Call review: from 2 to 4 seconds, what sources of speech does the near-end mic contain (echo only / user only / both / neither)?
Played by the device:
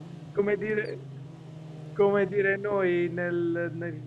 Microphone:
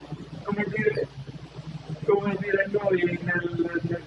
echo only